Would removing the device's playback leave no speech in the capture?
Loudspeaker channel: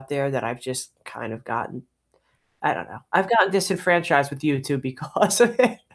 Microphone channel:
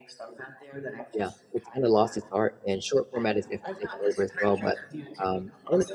No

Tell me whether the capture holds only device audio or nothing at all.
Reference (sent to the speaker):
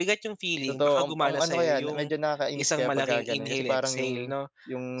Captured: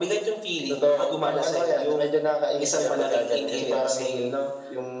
Yes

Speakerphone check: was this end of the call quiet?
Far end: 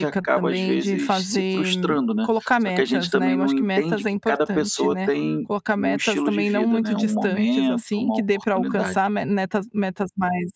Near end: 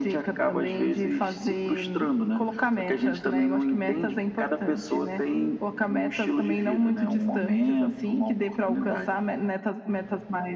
Yes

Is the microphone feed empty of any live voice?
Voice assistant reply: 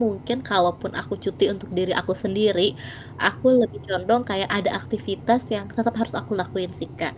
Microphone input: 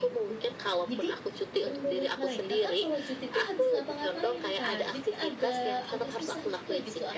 No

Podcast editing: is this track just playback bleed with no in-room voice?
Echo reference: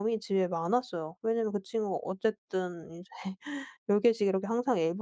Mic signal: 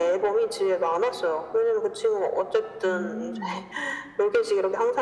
No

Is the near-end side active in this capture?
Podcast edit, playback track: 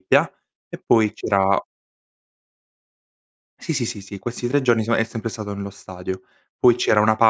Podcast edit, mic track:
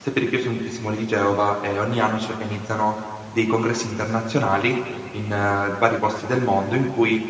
Yes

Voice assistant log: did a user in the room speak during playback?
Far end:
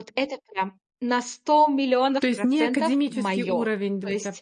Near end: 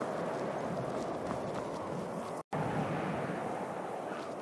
No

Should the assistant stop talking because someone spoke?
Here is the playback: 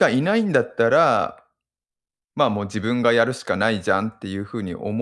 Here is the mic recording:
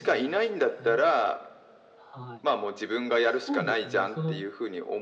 Yes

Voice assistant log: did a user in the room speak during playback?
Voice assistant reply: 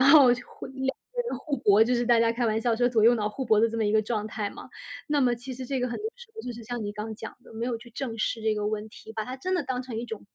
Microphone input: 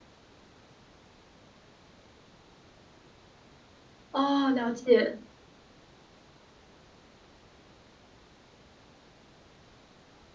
Yes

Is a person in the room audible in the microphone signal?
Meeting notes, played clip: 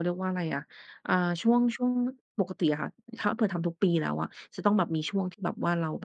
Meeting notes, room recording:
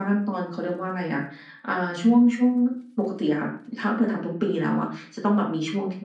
No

